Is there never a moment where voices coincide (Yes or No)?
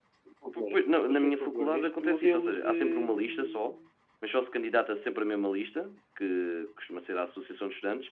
No